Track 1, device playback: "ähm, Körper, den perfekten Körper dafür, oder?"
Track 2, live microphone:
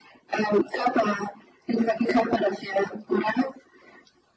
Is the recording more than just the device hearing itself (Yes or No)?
No